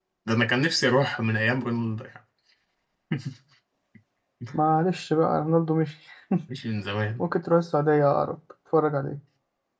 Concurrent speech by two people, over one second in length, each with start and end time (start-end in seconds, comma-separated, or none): none